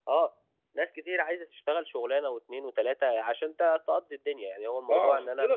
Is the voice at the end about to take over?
Yes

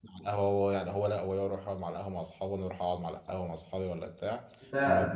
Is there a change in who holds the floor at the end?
No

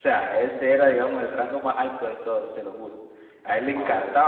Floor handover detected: No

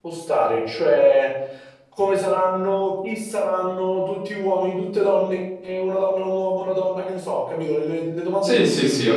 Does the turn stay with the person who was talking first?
No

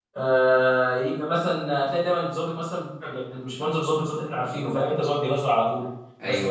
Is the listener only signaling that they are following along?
Yes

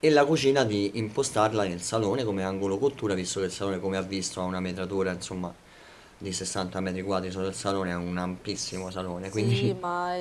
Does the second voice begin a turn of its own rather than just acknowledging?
Yes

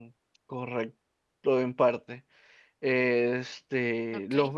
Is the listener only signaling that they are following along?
Yes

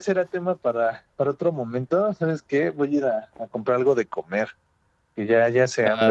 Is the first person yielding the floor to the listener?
Yes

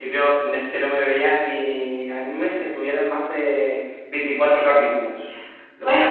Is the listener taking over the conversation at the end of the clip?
Yes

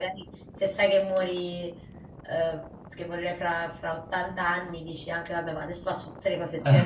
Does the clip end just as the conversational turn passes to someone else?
Yes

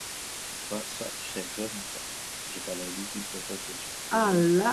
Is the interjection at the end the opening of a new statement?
Yes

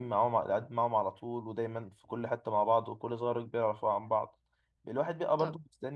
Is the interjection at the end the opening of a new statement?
No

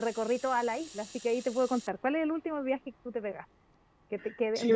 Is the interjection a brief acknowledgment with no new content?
No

